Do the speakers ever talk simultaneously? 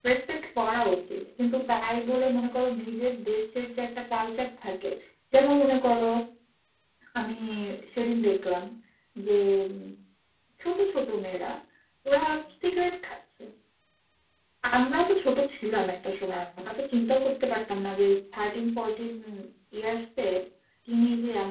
No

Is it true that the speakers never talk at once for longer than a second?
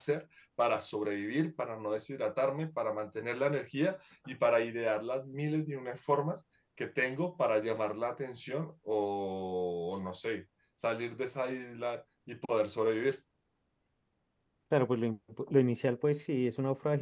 Yes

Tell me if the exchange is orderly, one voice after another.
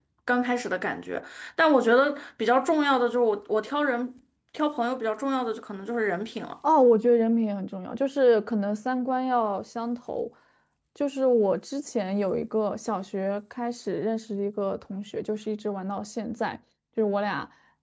Yes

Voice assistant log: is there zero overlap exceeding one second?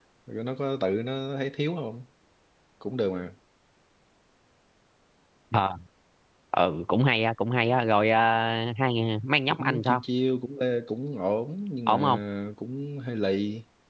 Yes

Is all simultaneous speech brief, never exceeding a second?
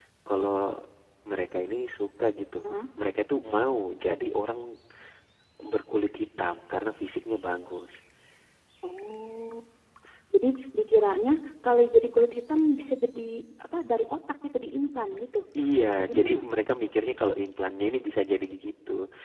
Yes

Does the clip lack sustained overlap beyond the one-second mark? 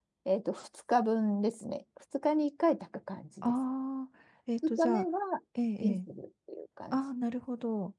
Yes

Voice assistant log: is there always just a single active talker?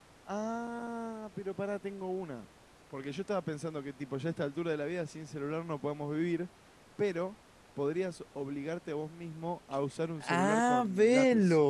No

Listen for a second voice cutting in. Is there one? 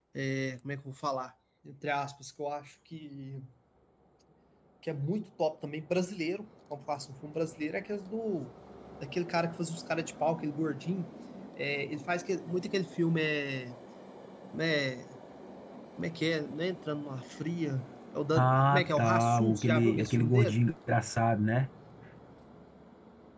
Yes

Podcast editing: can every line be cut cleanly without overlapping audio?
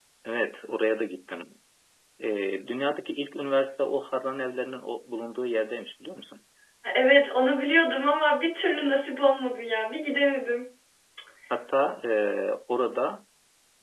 Yes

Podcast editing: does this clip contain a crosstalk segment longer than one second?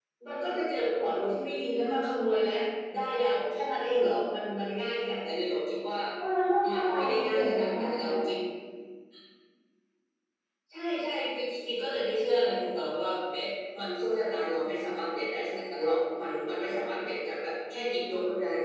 Yes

